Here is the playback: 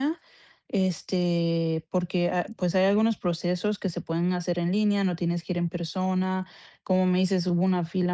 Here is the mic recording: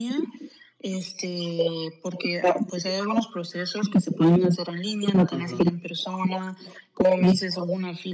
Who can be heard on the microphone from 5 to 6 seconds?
both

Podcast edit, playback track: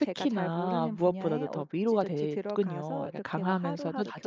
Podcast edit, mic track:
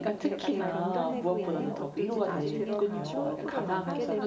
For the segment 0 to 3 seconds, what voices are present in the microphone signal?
both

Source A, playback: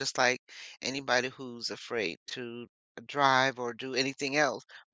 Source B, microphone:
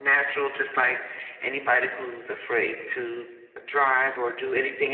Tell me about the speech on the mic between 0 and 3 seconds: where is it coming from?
echo only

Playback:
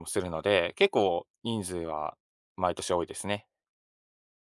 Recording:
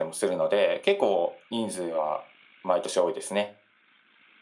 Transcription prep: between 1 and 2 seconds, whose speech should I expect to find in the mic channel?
echo only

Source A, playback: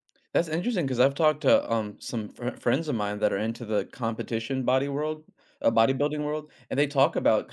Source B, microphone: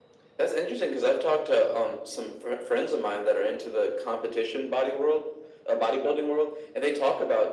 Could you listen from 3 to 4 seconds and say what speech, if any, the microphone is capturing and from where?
echo only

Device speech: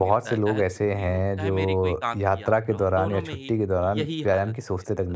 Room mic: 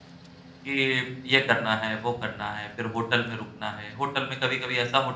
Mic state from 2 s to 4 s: user only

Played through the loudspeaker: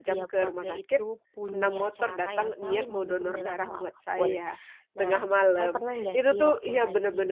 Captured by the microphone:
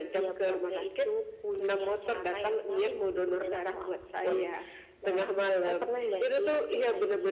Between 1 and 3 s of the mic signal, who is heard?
echo only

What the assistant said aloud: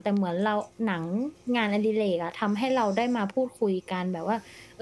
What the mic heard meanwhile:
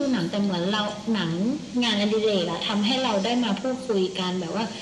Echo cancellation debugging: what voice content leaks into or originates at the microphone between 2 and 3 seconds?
echo only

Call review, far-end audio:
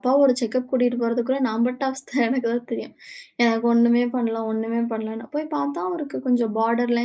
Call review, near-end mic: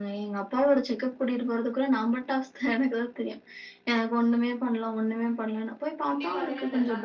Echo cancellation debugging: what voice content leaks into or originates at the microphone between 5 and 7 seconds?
both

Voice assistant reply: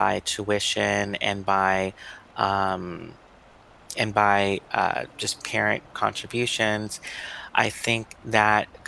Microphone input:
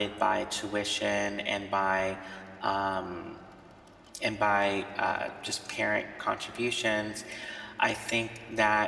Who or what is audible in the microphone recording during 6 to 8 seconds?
echo only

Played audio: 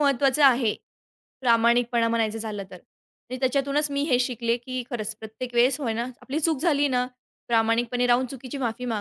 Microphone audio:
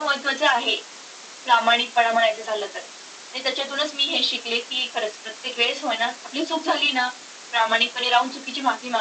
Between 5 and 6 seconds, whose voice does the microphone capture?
echo only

